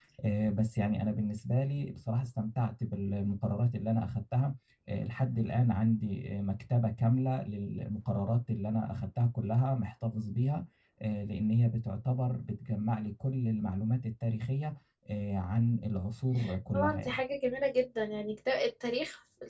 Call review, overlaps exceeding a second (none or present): none